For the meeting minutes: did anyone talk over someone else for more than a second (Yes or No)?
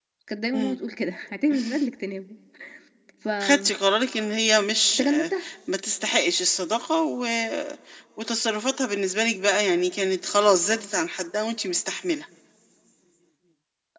No